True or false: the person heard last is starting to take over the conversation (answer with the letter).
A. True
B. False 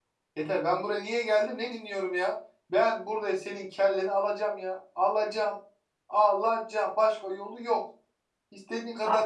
B